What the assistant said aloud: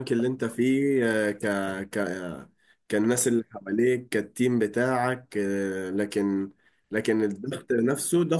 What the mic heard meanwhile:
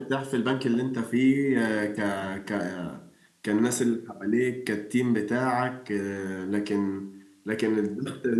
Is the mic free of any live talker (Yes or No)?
Yes